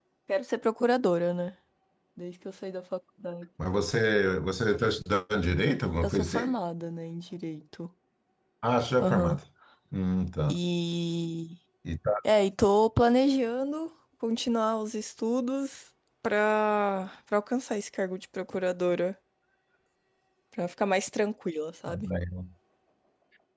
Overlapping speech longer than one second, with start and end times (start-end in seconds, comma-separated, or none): none